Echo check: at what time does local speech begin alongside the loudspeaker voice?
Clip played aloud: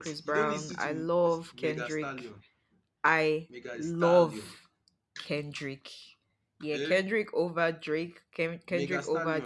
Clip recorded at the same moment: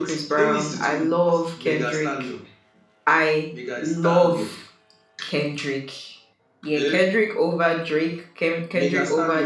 none

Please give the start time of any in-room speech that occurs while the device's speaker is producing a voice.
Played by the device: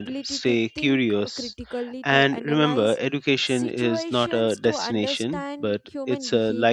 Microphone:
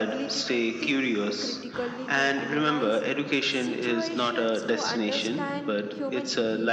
none

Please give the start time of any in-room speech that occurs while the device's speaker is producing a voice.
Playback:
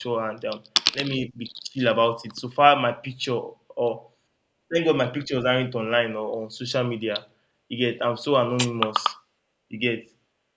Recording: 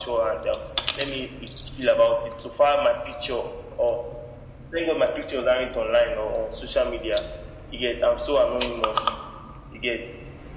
none

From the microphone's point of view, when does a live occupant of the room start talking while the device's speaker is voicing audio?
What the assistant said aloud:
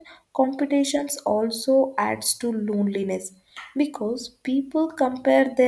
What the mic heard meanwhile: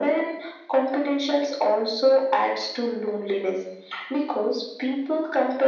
none

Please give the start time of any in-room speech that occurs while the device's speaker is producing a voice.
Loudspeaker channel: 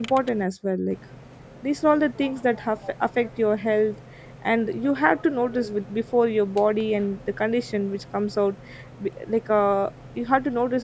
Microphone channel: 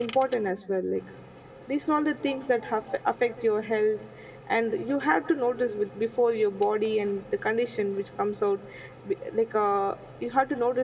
none

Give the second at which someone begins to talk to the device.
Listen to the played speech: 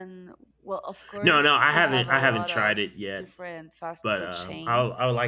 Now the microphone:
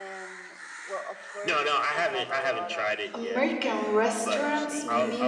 3 s

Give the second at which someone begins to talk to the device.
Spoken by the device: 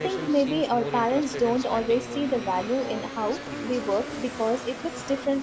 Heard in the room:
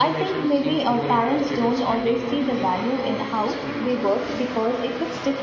none

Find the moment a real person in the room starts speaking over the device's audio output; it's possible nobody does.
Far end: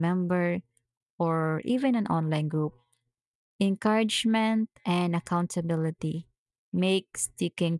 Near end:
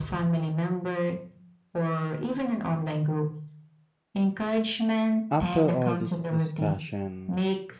5 s

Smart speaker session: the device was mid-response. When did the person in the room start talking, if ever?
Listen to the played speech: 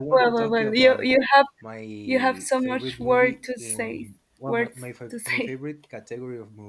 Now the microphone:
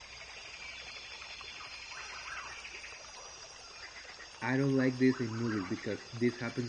4 s

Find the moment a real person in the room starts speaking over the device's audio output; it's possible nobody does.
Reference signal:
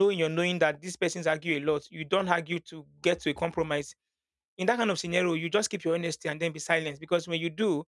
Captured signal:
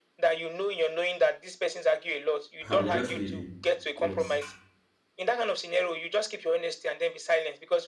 3 s

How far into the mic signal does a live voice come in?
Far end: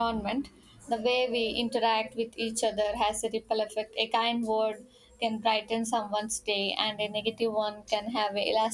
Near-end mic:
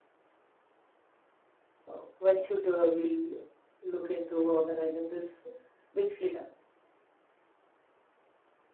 2 s

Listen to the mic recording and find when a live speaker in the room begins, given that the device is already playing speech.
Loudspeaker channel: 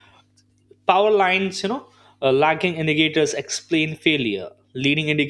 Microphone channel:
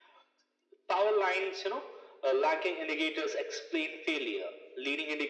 none

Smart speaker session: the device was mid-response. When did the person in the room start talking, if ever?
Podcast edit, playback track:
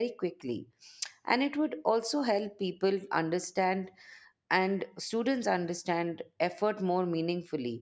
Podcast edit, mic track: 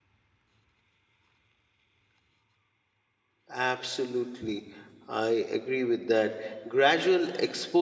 3 s

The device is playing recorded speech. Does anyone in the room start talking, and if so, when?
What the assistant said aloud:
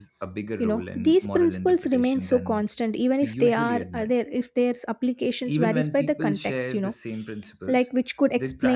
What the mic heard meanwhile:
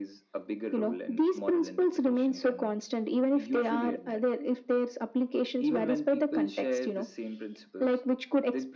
none

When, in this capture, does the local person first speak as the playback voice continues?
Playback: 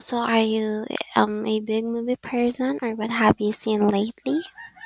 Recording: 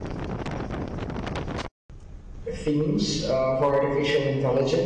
3 s

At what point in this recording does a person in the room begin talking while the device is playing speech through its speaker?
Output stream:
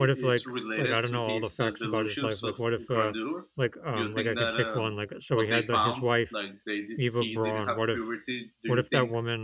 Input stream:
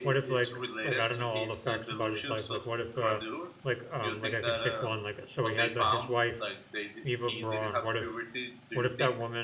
none

